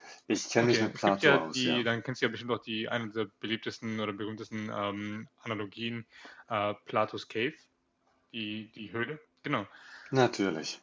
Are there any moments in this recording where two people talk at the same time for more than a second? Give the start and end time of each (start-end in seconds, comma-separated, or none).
0.6-1.9